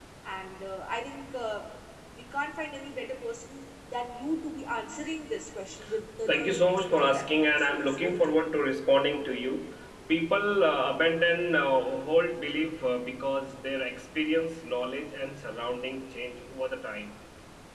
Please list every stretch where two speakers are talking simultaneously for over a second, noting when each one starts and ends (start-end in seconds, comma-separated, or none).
6.3-8.4